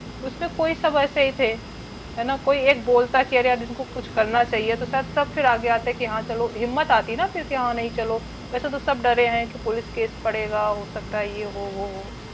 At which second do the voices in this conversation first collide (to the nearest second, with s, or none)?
none